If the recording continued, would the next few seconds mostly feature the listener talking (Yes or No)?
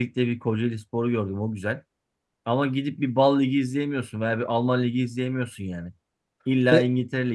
No